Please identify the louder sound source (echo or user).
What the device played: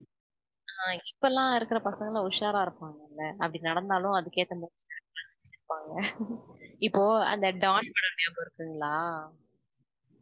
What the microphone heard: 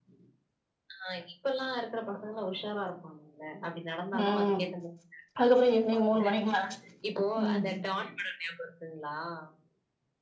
user